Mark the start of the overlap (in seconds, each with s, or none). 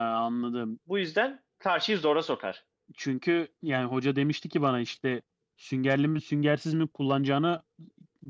none